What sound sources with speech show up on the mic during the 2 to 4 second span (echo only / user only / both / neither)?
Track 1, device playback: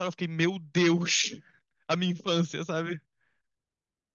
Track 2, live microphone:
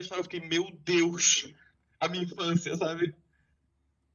echo only